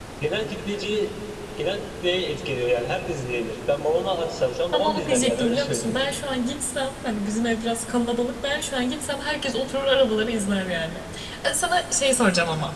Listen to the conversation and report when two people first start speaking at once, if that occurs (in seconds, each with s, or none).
4.7 s